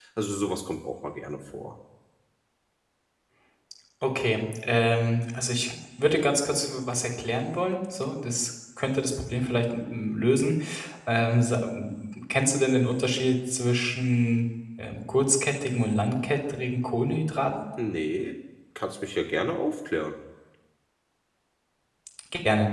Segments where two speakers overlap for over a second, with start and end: none

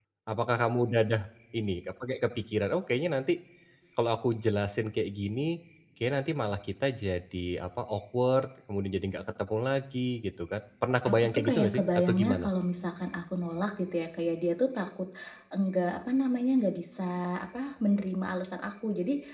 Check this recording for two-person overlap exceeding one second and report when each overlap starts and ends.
11.0-12.5

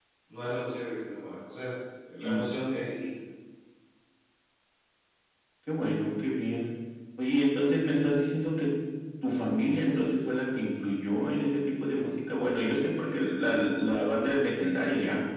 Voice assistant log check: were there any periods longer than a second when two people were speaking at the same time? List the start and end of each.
none

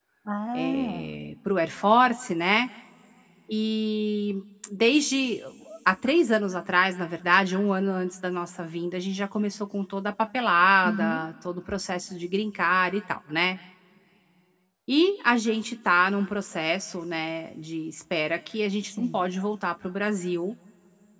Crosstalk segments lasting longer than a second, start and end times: none

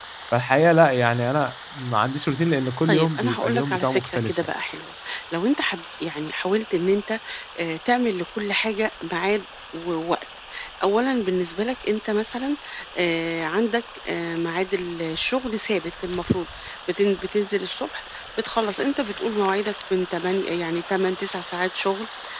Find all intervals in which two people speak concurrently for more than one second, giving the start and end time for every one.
2.9-4.5

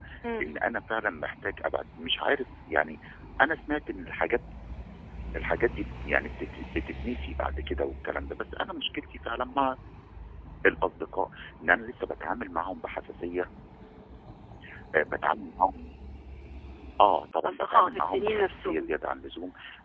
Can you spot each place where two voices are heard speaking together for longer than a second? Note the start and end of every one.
17.4-18.9

